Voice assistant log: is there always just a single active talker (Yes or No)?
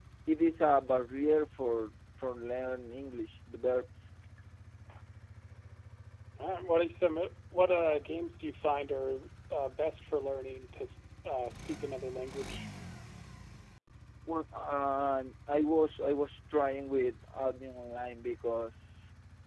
Yes